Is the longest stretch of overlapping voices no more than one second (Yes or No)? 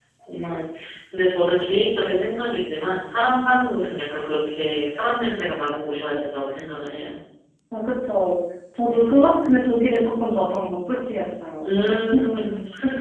Yes